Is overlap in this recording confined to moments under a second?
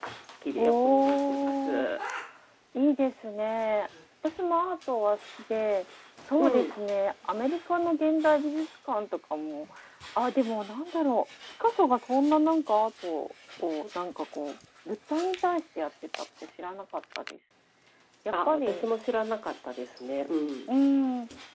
No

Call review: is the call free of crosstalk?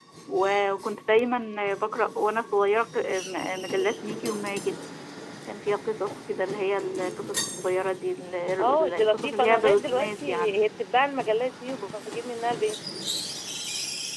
No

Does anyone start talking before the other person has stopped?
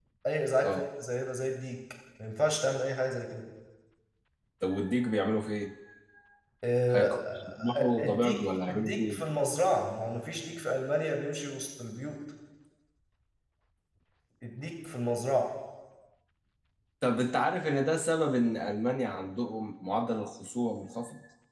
Yes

